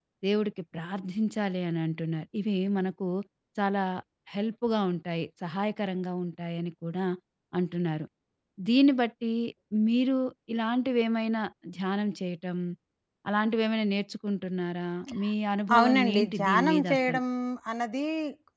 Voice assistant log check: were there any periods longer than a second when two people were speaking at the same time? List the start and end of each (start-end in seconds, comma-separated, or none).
15.8-17.2